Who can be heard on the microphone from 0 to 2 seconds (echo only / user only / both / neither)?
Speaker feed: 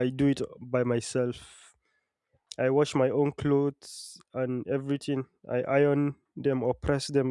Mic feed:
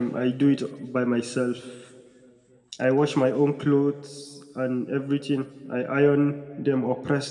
echo only